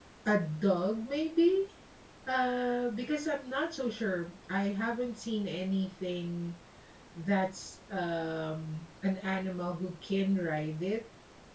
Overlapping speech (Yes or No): No